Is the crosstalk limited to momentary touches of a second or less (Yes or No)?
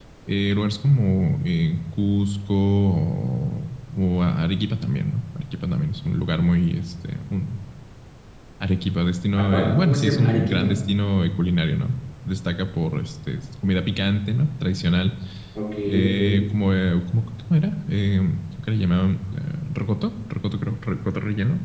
No